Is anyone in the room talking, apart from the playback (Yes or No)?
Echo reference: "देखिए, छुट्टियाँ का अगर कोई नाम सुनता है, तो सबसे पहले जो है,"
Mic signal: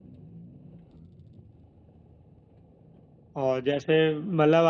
Yes